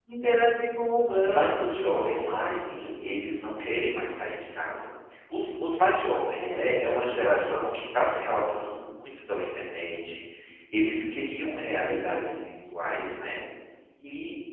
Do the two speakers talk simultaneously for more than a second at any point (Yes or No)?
Yes